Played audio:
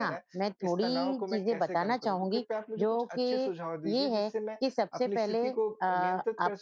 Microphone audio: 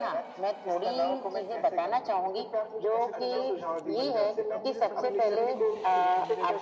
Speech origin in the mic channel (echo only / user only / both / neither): both